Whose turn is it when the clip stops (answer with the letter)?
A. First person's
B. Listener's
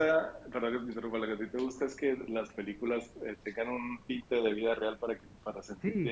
B